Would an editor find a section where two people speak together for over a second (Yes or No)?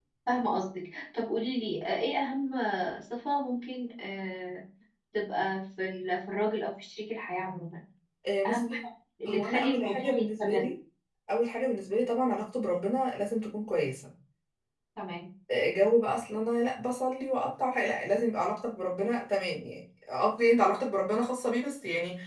Yes